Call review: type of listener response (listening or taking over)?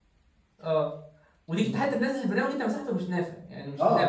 taking over